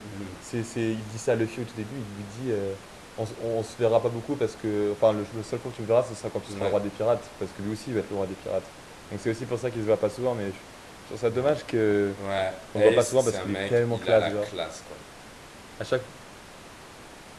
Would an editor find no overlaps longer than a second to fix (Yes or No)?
No